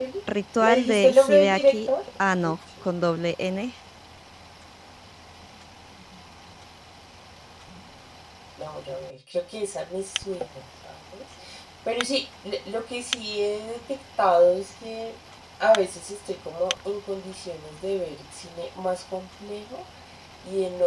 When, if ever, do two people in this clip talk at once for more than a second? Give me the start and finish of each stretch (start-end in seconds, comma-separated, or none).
0.6-1.9